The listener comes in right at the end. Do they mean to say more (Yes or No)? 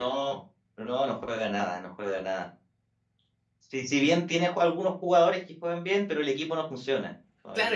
Yes